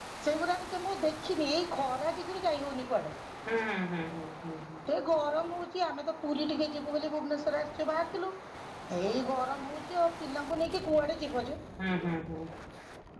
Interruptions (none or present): none